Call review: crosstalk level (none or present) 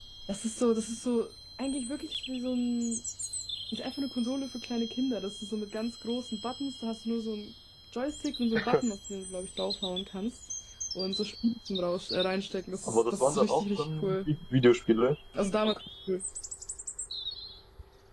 present